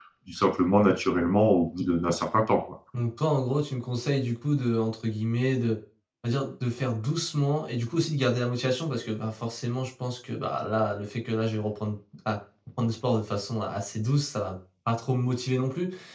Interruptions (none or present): none